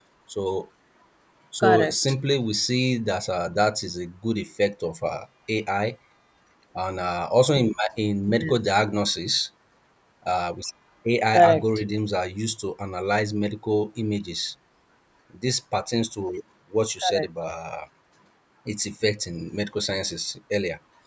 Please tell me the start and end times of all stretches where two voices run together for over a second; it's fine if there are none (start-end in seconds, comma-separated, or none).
none